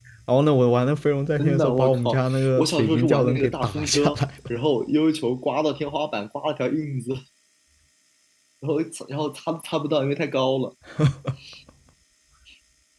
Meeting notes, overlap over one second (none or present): present